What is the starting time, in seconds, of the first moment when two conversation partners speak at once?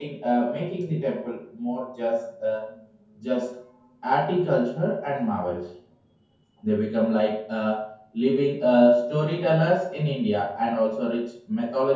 none

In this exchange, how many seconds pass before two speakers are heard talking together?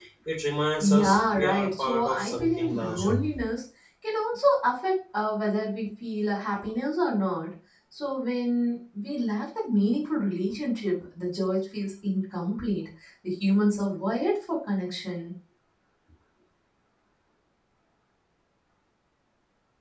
0.8 s

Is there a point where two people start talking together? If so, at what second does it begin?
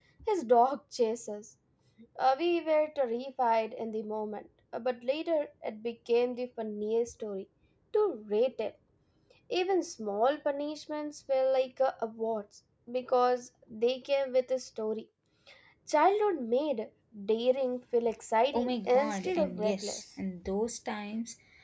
18.5 s

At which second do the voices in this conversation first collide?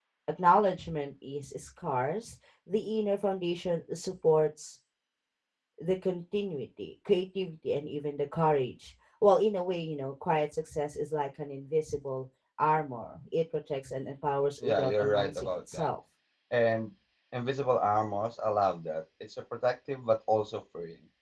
14.6 s

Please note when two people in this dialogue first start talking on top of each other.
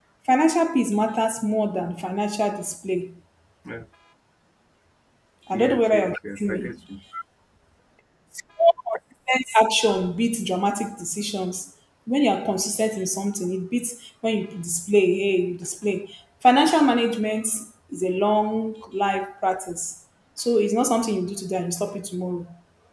5.5 s

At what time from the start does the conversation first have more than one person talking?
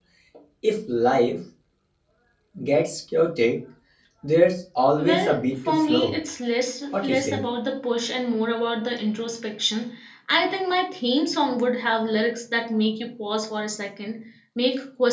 5.0 s

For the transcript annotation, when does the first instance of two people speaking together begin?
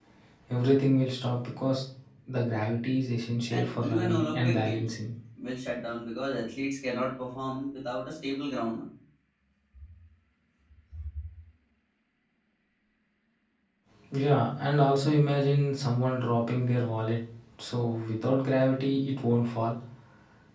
3.5 s

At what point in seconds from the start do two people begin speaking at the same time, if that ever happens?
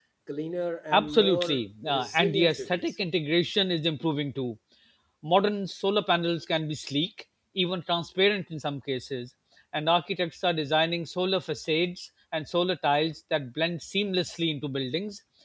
0.9 s

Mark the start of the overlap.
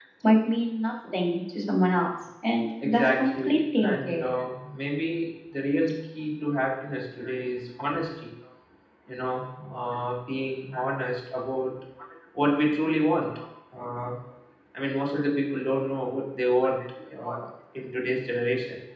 2.8 s

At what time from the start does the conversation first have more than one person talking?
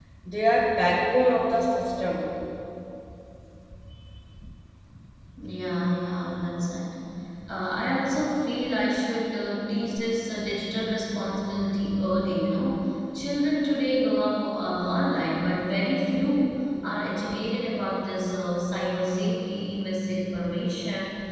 none

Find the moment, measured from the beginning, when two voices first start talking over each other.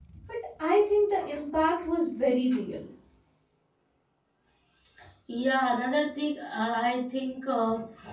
none

